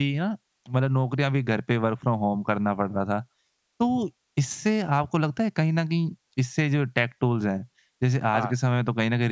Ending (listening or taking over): listening